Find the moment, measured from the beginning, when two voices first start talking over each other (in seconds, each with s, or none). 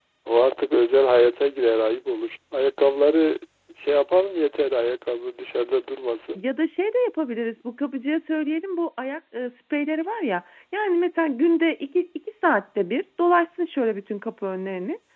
none